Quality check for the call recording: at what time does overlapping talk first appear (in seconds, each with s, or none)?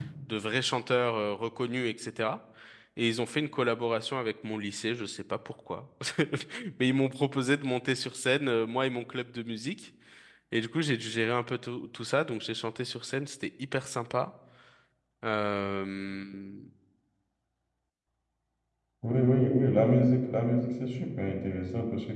none